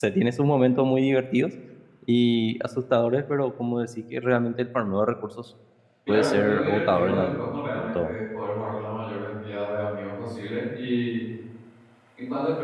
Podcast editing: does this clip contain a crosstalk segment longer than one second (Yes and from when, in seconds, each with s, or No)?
Yes, from 6.1 s